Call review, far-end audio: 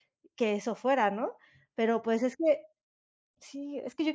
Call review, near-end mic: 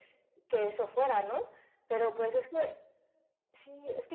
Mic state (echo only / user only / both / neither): echo only